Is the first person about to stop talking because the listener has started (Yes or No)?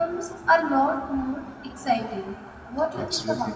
Yes